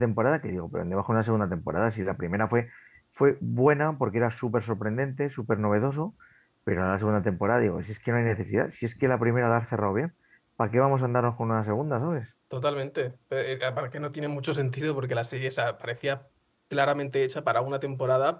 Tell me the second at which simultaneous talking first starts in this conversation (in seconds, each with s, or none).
none